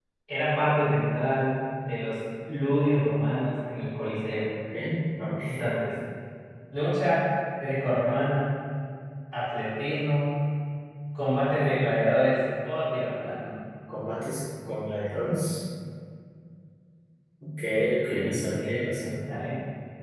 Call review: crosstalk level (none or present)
present